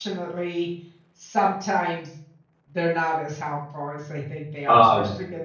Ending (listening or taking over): listening